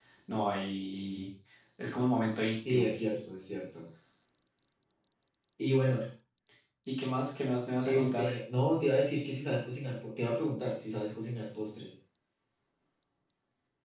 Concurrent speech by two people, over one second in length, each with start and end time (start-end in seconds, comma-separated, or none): none